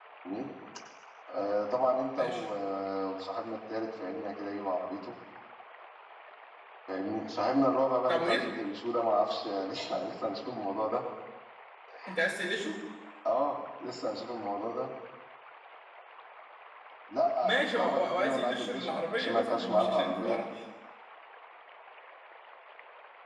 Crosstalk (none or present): present